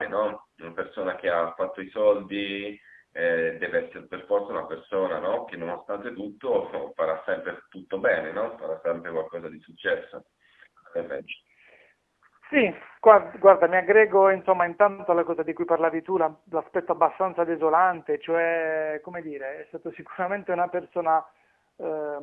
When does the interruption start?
none

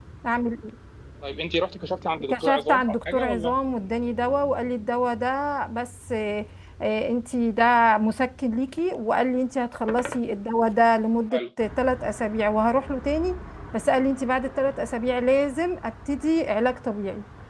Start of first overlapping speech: 2 s

